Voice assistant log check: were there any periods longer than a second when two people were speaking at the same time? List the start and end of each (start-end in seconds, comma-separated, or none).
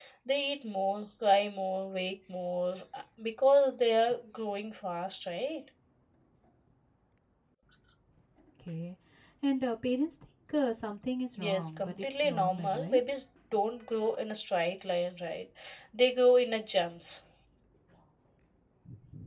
11.4-13.0